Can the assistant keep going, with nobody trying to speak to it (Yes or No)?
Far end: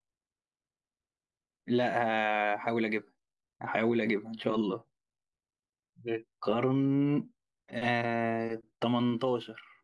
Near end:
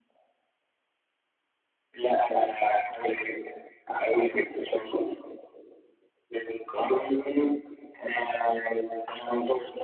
Yes